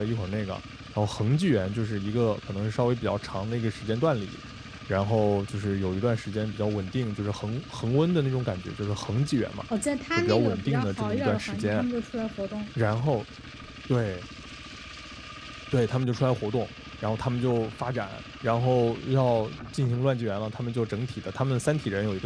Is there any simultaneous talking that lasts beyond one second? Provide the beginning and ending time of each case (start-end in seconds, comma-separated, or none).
10.2-11.8